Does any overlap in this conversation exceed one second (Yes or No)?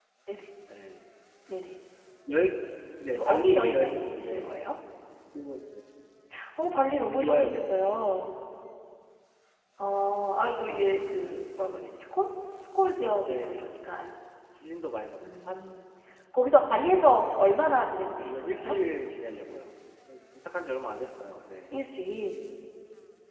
Yes